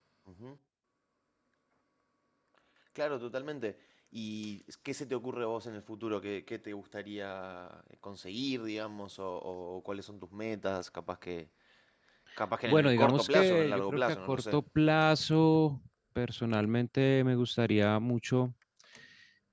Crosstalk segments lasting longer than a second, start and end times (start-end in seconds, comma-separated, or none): 12.7-14.6